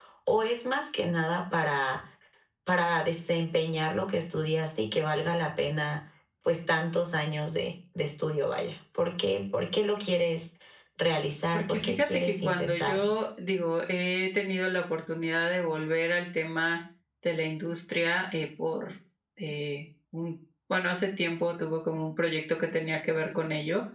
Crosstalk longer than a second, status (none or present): present